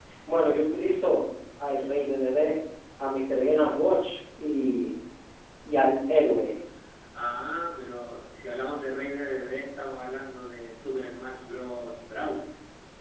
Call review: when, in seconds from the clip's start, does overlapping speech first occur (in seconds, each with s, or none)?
none